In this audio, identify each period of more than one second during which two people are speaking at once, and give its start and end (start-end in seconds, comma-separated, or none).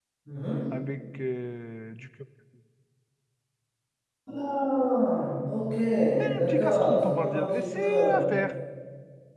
6.3-8.2